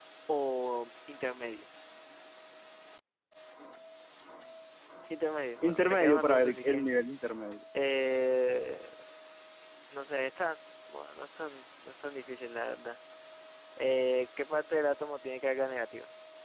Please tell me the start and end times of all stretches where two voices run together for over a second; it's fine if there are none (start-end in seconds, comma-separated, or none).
5.6-6.8